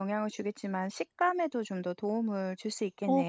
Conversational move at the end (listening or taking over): taking over